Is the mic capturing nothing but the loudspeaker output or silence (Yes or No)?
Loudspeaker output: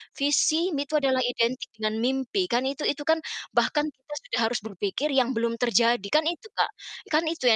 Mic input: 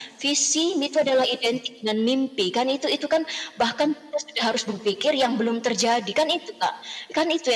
Yes